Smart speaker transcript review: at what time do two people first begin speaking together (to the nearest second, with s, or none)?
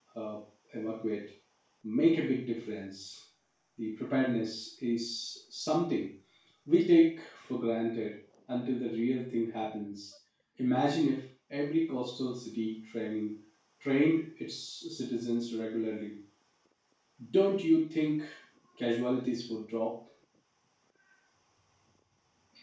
none